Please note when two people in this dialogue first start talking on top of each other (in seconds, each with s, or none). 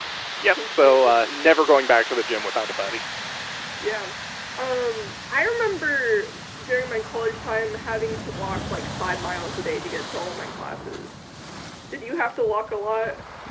0.5 s